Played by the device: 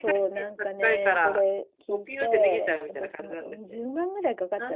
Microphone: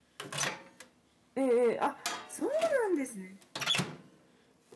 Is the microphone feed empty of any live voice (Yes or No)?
No